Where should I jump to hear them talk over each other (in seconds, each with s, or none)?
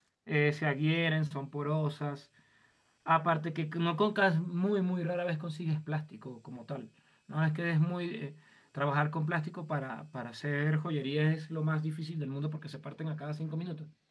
none